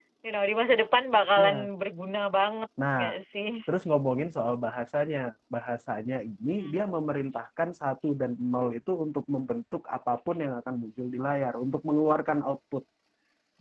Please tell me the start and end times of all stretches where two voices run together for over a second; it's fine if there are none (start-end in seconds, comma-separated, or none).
none